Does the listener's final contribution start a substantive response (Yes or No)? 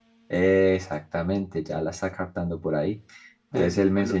No